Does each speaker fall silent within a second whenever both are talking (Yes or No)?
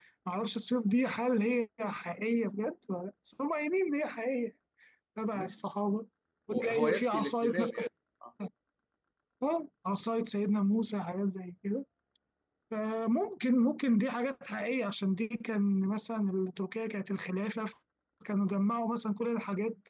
No